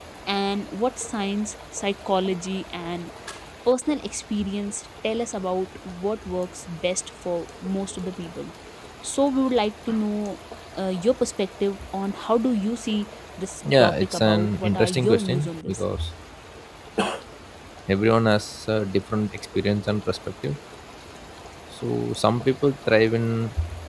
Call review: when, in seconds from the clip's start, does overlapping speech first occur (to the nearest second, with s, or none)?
14 s